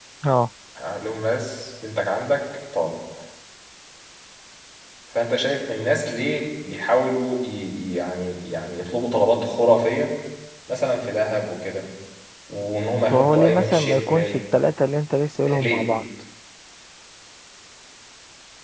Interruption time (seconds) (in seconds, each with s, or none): 13.1 s